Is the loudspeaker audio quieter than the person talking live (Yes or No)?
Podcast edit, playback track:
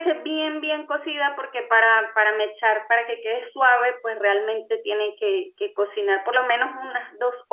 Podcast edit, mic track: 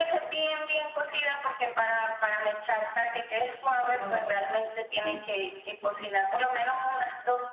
No